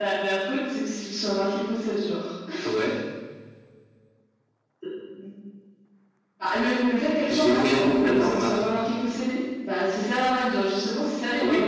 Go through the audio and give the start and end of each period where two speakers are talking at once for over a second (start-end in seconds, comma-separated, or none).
7.3-8.5